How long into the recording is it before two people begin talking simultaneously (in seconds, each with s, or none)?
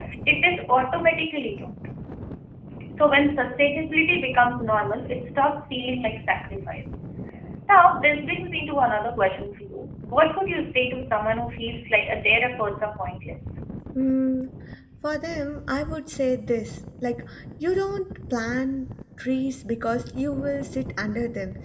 none